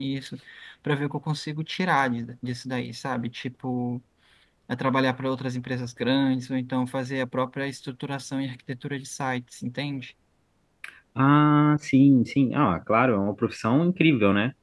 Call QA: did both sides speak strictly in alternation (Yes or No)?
Yes